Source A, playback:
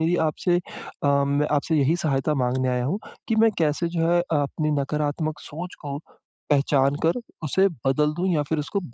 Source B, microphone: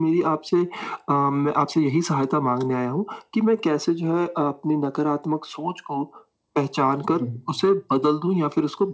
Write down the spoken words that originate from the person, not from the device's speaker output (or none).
हुँ।